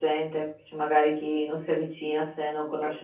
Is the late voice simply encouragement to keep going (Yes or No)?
No